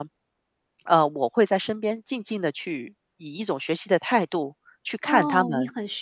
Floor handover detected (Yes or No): Yes